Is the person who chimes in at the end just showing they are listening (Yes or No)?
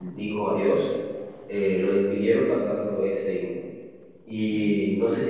Yes